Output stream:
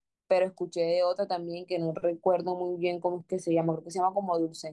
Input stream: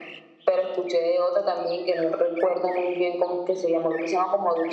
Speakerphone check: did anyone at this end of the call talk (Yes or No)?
No